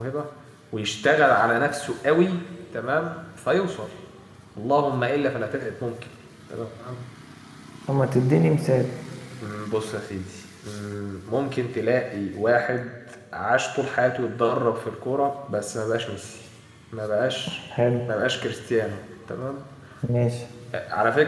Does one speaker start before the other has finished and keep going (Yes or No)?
No